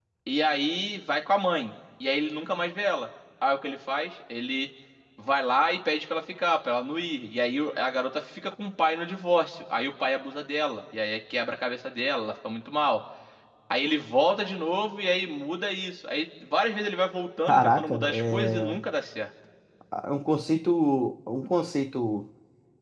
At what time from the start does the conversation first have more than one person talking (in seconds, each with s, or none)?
17.5 s